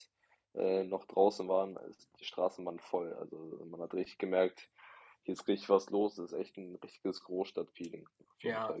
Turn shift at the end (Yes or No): Yes